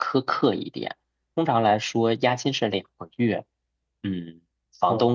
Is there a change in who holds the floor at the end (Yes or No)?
No